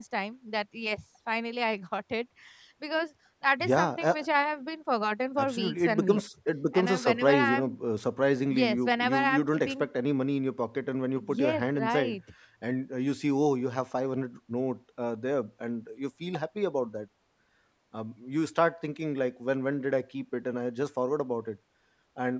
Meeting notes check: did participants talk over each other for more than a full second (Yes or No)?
Yes